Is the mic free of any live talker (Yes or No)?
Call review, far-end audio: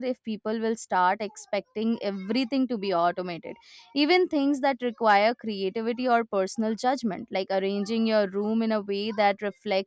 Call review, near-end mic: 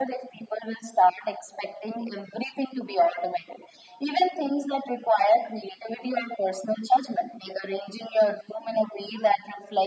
Yes